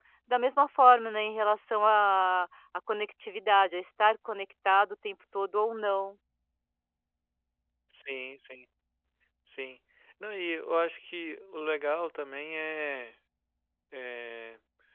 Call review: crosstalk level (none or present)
none